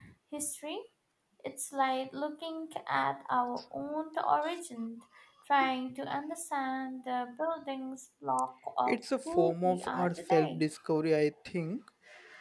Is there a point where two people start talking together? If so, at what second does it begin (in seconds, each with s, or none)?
8.9 s